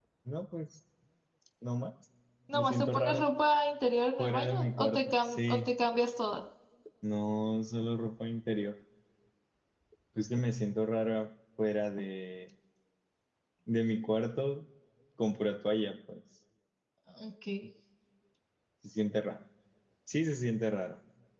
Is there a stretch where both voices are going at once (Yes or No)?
Yes